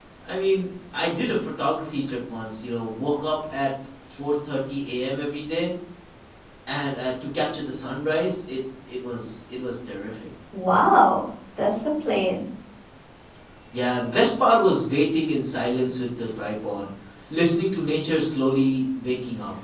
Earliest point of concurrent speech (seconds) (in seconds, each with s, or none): none